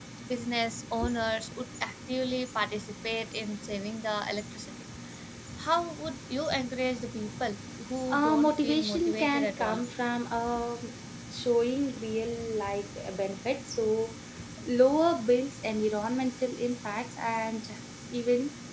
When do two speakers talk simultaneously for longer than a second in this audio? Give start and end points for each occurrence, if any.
8.1-9.8

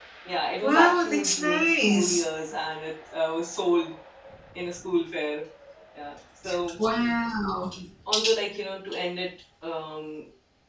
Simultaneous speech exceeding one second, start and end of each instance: 0.6-2.2

